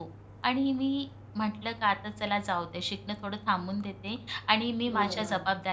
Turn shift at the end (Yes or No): No